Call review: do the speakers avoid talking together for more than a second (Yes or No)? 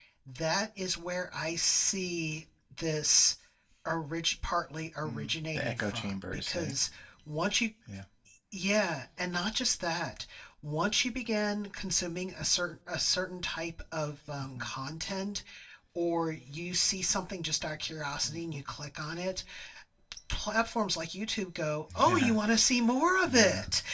No